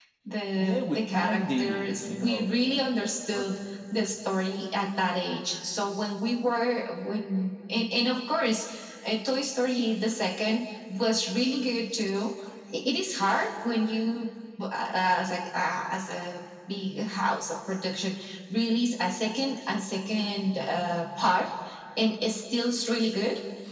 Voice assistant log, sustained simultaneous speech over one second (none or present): present